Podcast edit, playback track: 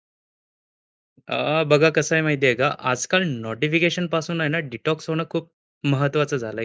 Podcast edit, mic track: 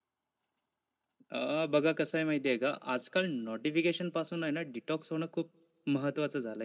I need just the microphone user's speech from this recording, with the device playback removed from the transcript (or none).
none